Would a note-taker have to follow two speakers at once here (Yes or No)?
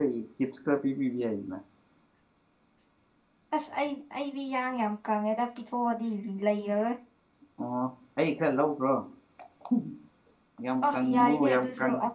Yes